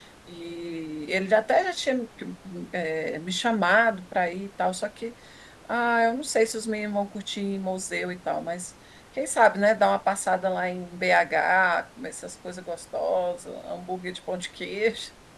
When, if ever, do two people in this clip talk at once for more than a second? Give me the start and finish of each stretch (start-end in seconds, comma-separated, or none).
none